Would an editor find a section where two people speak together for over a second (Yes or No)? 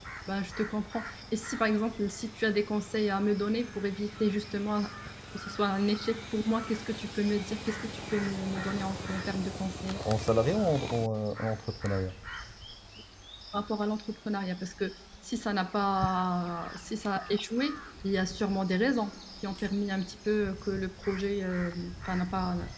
No